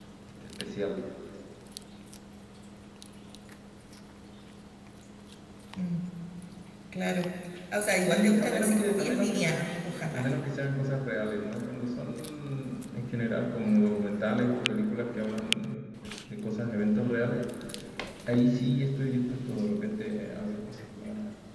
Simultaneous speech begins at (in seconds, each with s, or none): 8.0 s